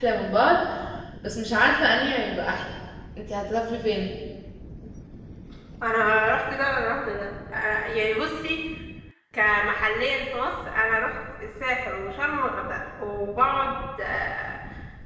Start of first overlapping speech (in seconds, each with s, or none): none